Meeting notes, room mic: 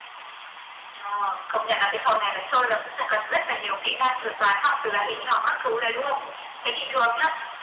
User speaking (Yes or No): No